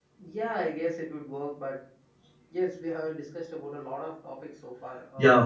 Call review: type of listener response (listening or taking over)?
taking over